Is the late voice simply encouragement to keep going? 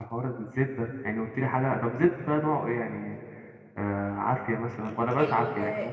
No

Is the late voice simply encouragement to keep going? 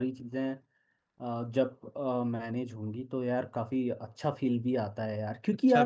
No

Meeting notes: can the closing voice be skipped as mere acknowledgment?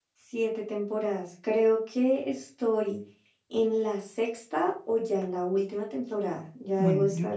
No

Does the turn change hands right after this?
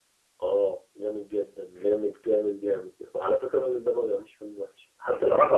No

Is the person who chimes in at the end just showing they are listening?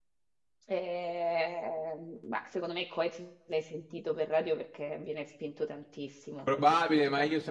No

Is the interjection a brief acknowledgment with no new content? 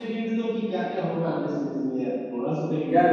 No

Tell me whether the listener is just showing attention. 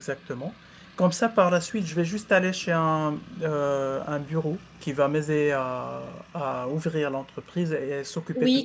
No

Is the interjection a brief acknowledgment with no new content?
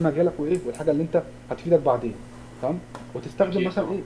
Yes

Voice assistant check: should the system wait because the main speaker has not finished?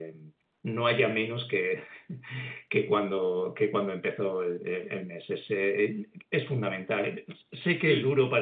Yes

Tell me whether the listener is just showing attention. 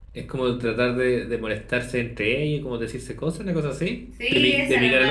No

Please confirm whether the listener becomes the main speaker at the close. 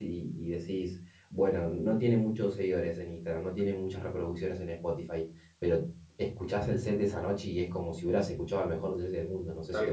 Yes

